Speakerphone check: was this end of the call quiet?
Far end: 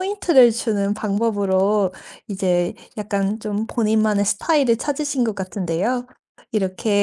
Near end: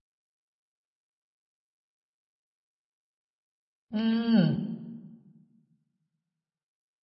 No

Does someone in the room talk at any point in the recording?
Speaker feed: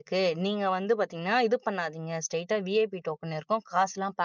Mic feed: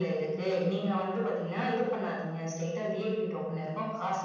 No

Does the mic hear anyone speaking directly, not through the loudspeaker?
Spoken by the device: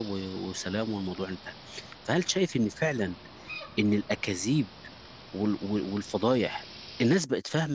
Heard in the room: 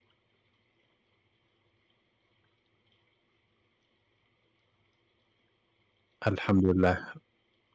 Yes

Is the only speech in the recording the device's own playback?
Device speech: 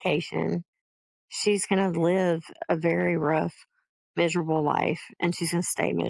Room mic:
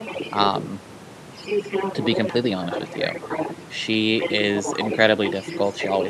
No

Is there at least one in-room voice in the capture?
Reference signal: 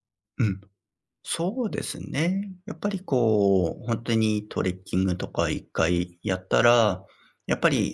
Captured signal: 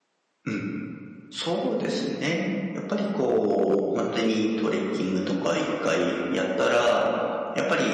No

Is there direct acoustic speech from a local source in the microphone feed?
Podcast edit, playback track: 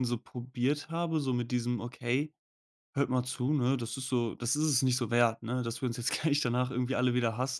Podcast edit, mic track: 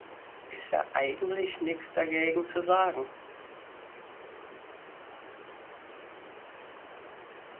Yes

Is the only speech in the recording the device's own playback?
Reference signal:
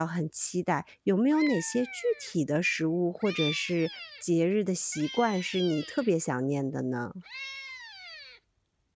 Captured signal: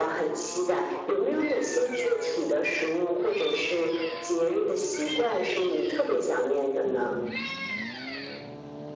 Yes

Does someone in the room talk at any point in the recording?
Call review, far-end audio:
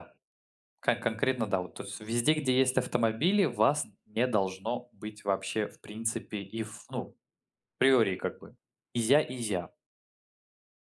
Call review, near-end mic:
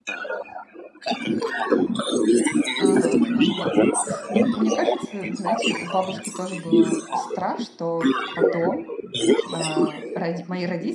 Yes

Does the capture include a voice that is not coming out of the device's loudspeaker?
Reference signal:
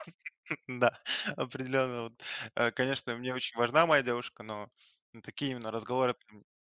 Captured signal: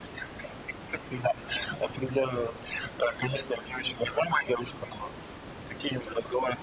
No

